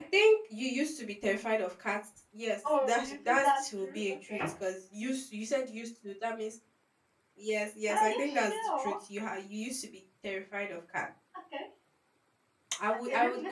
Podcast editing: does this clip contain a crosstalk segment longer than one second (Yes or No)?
Yes